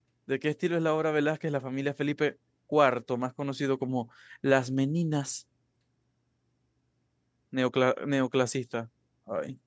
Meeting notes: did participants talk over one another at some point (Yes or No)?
No